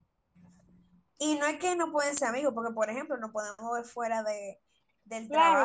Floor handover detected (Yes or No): Yes